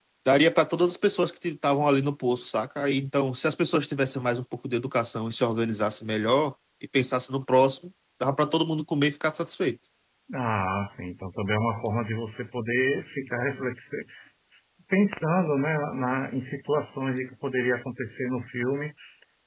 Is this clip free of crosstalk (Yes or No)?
Yes